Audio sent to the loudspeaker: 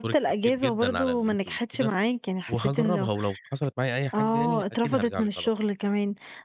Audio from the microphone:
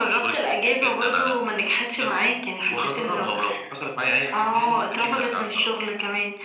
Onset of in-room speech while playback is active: none

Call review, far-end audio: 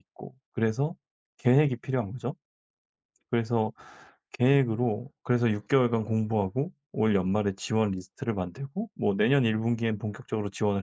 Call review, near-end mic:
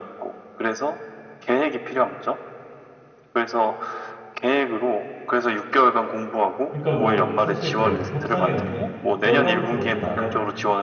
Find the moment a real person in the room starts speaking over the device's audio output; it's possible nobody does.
6.7 s

